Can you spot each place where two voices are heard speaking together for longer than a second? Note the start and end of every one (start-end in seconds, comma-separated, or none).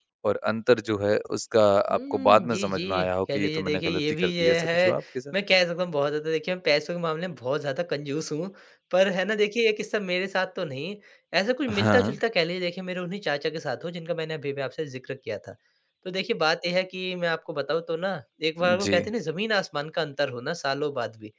1.9-5.0